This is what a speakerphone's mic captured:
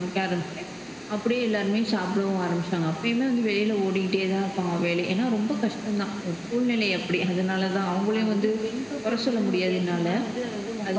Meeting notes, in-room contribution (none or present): present